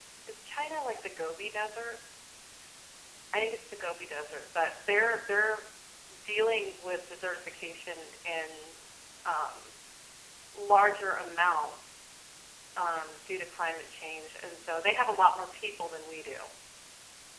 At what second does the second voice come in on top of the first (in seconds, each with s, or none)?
none